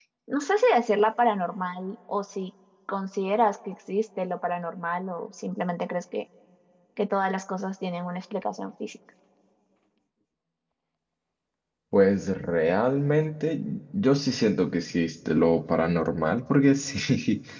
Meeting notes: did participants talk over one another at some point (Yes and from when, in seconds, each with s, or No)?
No